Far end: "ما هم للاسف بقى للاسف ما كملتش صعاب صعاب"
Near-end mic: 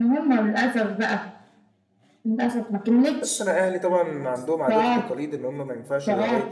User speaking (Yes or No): Yes